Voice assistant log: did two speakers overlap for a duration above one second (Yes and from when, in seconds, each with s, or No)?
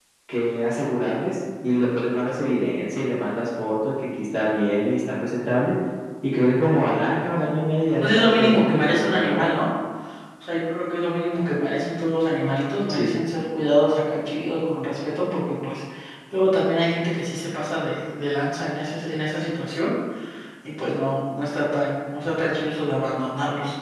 Yes, from 8.0 s